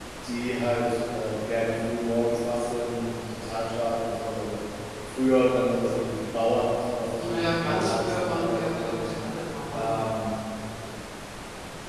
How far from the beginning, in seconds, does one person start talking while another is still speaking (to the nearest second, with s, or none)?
7 s